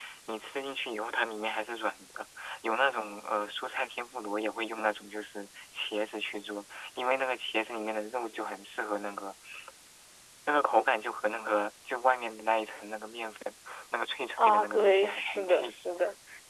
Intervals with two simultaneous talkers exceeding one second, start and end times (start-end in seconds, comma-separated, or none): 14.4-15.7